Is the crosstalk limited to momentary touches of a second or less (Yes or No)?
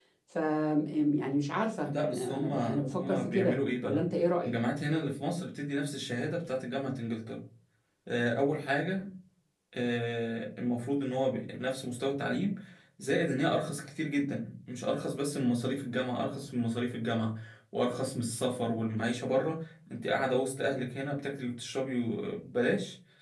No